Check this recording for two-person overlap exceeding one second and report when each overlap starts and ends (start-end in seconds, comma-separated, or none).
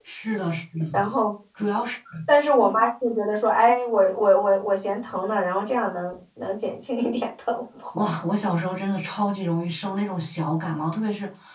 none